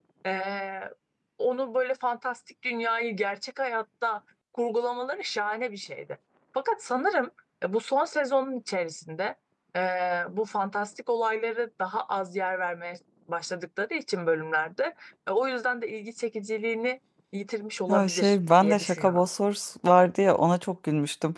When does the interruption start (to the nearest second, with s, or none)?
18 s